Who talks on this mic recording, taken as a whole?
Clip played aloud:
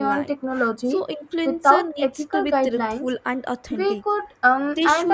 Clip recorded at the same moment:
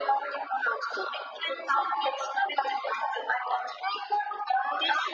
echo only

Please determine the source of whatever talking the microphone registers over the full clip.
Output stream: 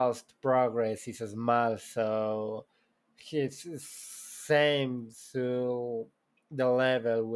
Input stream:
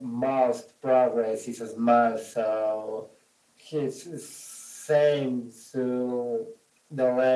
echo only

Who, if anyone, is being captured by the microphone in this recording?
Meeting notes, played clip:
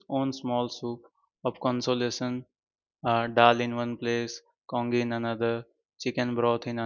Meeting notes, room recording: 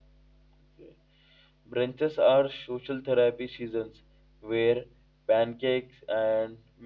user only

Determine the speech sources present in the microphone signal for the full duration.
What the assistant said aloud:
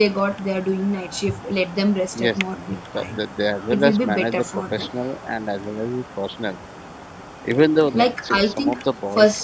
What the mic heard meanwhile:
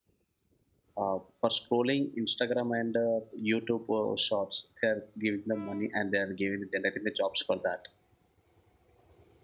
user only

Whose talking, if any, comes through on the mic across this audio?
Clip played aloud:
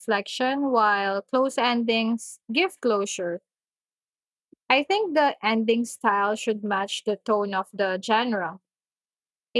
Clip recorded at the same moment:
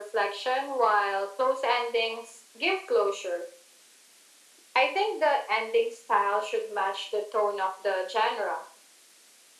echo only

